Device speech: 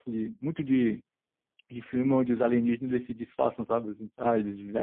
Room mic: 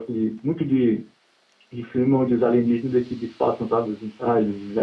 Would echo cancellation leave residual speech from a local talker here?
No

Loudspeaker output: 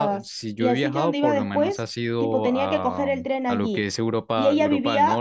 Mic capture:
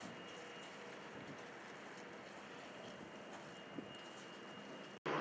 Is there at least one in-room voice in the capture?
No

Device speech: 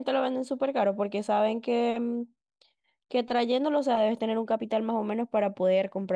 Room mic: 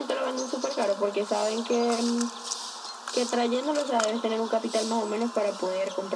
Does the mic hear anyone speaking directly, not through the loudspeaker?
No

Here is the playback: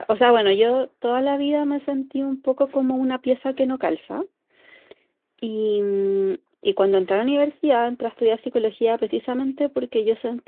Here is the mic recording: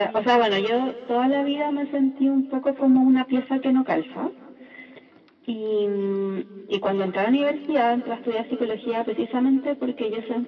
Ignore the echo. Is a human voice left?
No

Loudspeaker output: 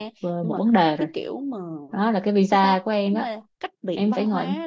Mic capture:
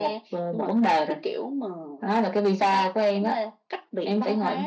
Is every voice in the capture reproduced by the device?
Yes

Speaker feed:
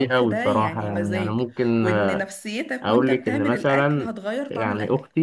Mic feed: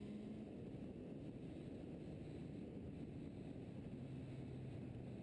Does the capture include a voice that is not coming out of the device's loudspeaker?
No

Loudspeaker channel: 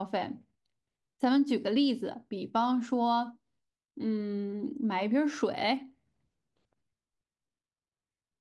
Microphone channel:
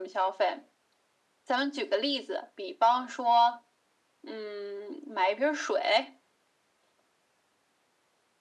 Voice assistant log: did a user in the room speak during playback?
No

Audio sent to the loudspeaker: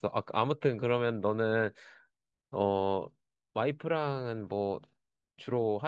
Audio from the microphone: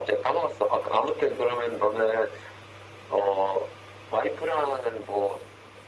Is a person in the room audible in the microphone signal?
No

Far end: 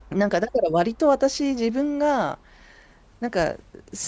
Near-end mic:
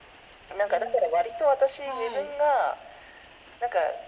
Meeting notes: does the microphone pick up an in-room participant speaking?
Yes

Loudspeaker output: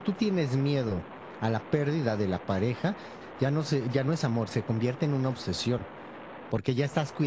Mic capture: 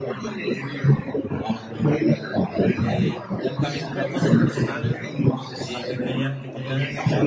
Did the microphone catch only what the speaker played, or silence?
No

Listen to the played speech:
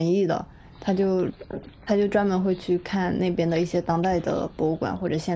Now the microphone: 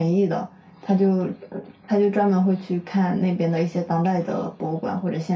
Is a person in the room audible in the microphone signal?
No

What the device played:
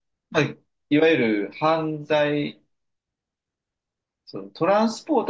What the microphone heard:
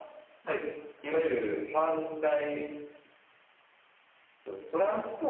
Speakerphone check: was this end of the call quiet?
Yes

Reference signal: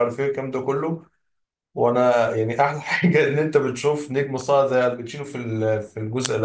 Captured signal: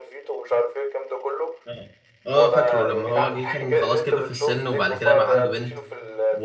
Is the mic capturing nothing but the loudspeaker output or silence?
No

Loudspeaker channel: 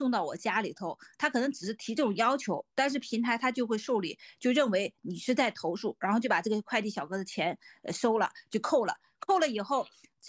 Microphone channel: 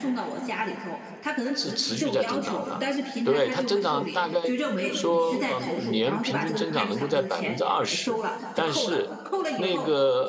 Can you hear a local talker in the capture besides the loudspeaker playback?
Yes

